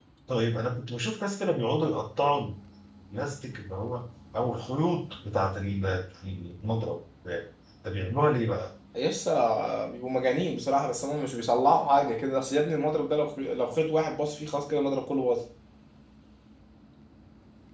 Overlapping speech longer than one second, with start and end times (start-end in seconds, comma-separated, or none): none